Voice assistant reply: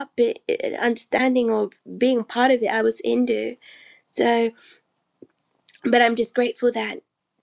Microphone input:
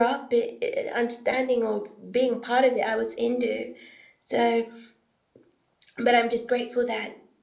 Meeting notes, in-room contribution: none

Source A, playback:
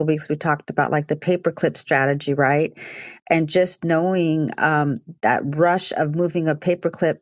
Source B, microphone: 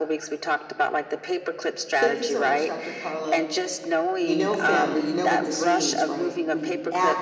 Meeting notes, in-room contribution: present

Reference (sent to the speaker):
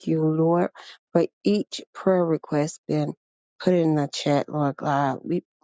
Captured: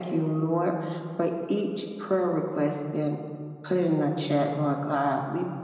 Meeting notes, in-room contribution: none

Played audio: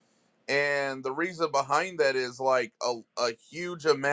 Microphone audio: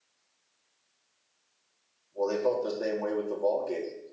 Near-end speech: present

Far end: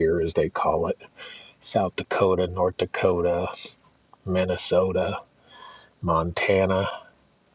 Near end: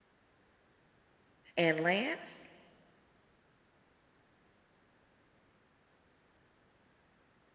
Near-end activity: present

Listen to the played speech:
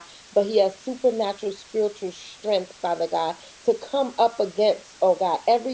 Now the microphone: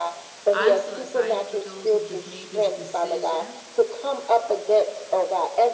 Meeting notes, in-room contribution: present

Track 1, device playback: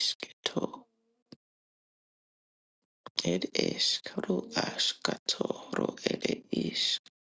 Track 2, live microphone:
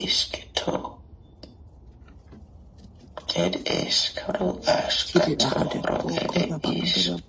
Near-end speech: present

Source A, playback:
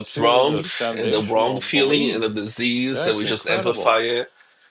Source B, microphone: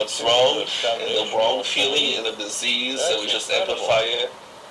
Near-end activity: none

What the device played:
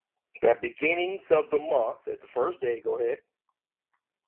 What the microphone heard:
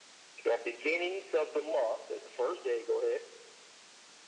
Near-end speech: none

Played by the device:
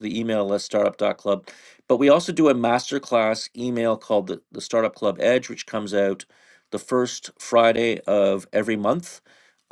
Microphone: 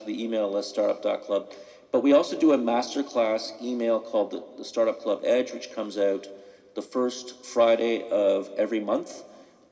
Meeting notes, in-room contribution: none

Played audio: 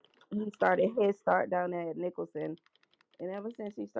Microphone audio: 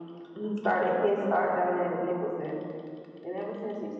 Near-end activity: none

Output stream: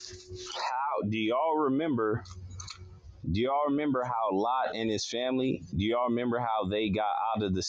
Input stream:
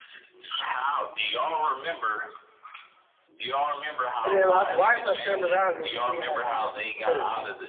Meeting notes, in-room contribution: present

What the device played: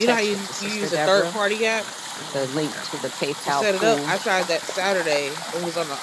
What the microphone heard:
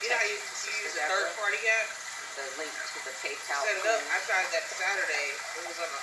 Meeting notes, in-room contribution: none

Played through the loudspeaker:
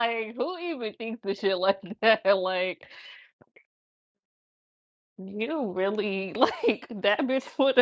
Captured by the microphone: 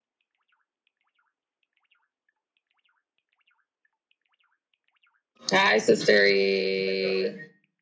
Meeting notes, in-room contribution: present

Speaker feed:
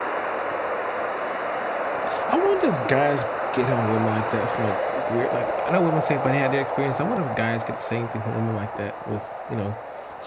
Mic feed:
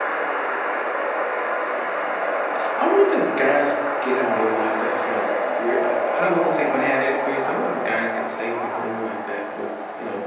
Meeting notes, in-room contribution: present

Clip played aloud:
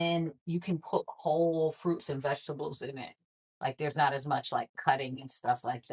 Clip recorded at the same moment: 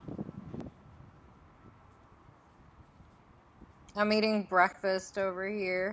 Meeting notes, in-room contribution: present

